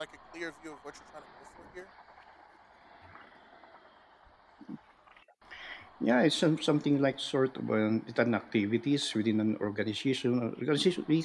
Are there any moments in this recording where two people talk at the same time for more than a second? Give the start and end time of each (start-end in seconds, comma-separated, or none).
none